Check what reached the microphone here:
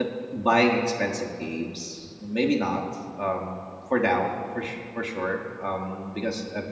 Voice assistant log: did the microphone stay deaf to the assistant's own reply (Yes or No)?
Yes